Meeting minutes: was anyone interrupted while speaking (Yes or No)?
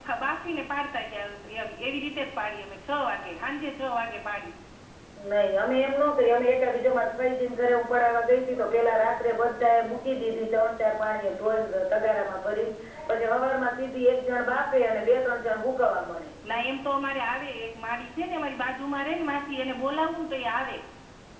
No